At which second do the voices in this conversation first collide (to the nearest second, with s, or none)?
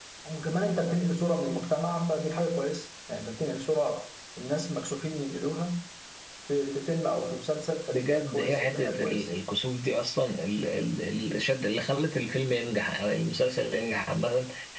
8 s